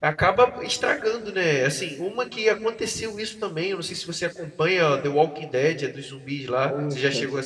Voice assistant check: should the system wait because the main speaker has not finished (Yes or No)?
No